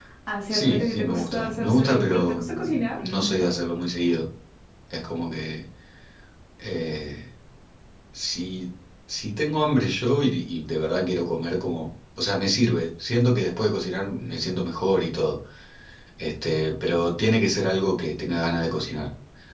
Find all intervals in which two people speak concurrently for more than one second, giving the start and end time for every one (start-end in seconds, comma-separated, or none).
0.5-3.5